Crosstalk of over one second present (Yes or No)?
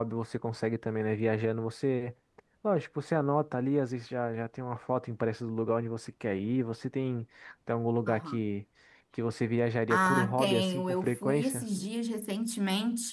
Yes